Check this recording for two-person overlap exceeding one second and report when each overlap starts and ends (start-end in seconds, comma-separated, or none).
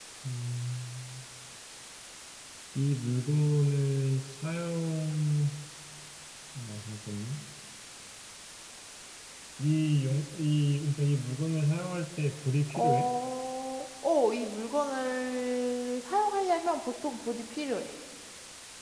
none